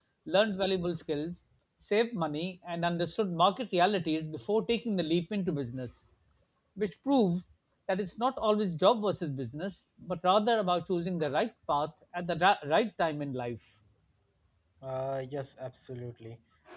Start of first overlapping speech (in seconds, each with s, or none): none